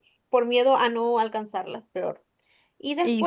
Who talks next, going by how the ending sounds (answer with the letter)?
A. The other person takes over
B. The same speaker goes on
B